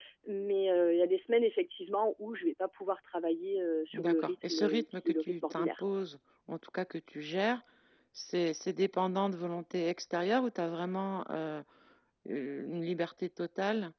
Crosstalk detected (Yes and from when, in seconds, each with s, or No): Yes, from 3.9 s